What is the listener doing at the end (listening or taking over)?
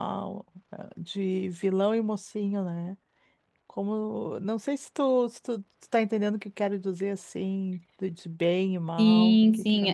taking over